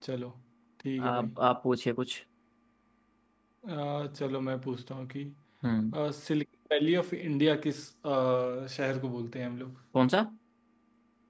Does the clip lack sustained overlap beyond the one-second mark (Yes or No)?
Yes